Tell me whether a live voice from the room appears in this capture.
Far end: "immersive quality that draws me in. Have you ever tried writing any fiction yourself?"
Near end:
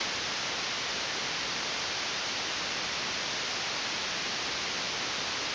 No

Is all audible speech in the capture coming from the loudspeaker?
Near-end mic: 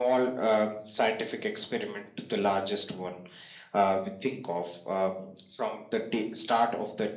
Yes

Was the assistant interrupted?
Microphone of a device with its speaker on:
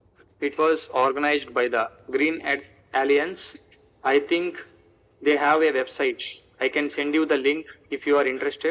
No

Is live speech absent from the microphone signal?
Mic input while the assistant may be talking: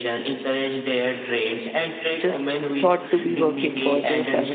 No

